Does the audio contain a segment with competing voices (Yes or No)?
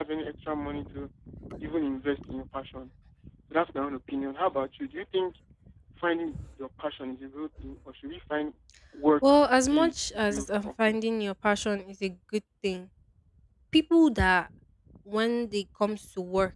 Yes